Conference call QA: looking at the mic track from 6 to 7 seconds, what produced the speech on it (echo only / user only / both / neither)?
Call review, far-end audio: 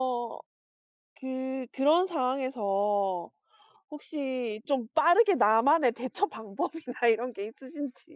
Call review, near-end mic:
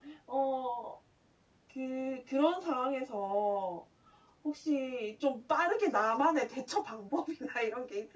echo only